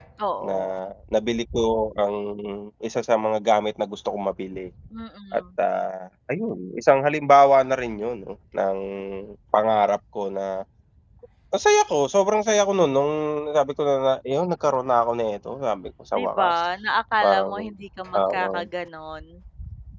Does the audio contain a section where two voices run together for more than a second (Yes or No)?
No